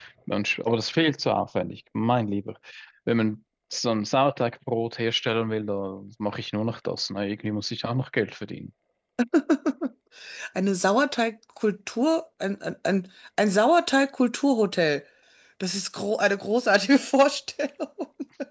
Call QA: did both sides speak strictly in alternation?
Yes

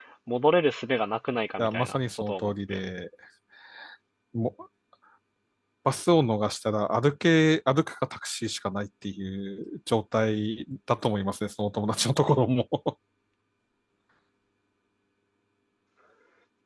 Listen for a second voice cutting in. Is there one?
Yes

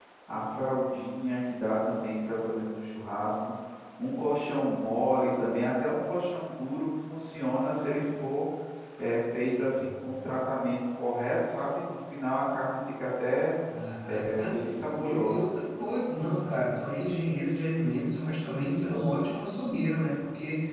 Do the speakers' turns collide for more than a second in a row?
Yes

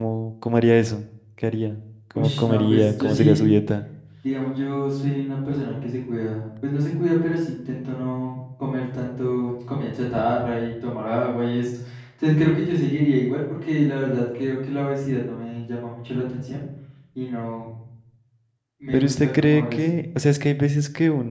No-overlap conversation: No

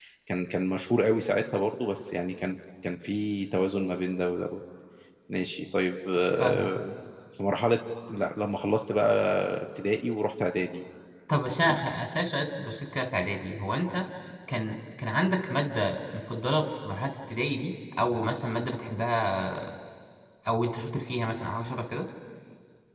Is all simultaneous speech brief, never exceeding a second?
Yes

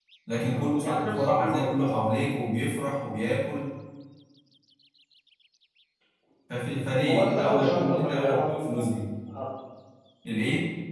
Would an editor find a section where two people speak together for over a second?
Yes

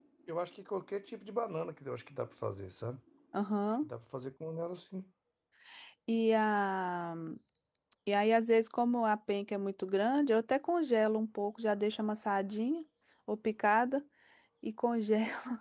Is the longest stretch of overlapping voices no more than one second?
Yes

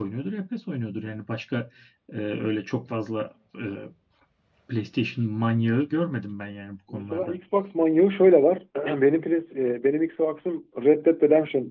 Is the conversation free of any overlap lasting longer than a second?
Yes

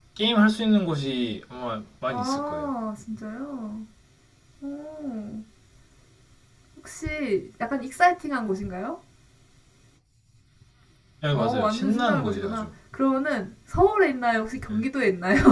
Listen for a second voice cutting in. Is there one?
Yes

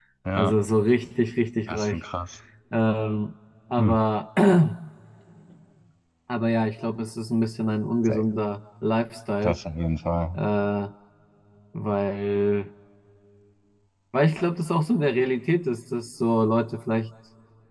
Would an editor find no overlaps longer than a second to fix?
Yes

